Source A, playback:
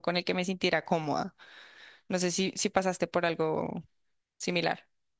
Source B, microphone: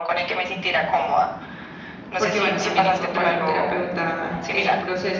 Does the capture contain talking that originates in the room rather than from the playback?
Yes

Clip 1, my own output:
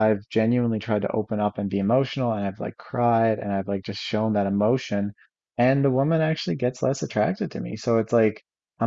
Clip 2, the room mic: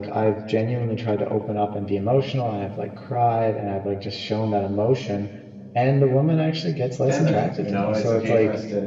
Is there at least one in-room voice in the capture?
Yes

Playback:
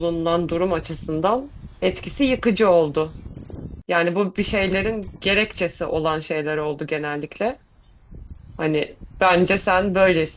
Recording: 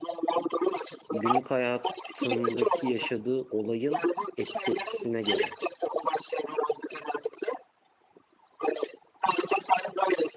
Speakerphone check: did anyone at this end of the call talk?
Yes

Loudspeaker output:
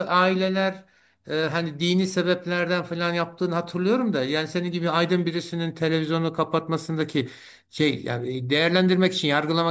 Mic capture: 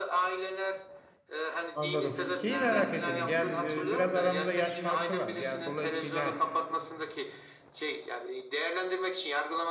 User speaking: Yes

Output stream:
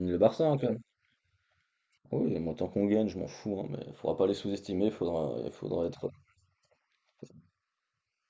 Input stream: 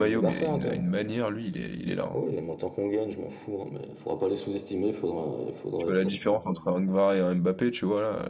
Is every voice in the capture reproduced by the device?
No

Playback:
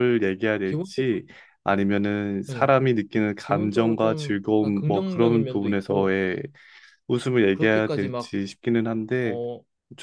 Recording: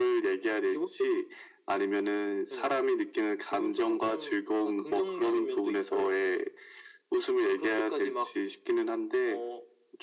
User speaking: No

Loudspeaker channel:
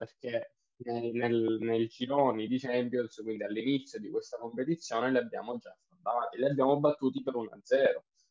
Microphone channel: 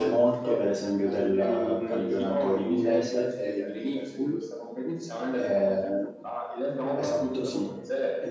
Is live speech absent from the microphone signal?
No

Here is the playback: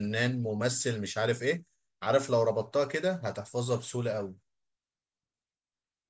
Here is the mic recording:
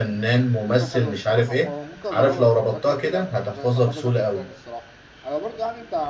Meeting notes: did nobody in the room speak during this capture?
No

